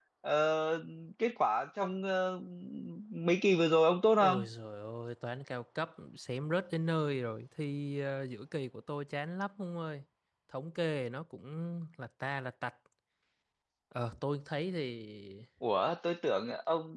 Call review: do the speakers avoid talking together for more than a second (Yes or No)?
Yes